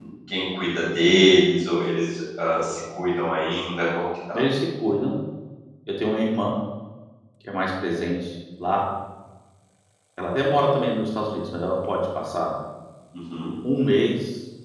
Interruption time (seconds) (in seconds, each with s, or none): none